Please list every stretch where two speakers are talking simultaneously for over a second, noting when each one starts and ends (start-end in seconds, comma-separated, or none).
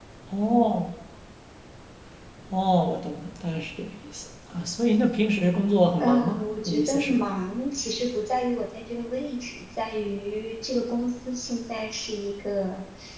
6.0-7.2